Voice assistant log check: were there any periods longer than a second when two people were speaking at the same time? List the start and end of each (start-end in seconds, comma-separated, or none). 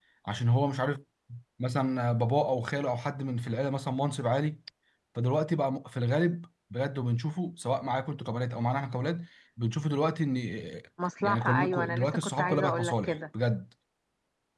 11.2-13.2